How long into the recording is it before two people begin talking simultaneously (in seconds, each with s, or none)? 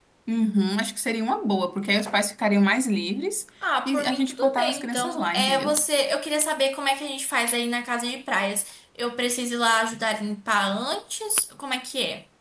3.9 s